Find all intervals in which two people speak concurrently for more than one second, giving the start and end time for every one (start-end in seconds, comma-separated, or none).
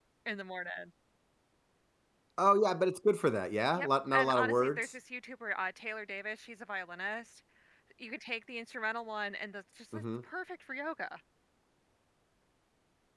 3.7-4.9